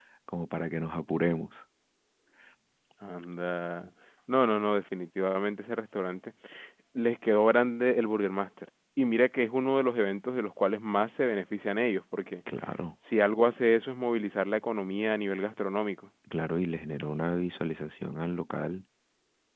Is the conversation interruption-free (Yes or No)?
Yes